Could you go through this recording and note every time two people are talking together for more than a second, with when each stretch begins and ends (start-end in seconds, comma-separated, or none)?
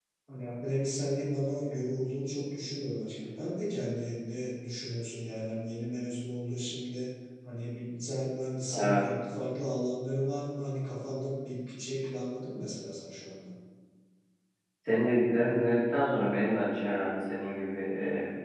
none